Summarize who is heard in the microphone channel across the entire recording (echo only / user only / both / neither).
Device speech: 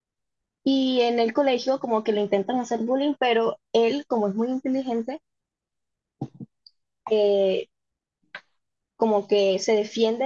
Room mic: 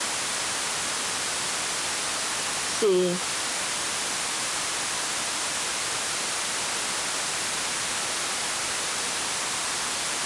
user only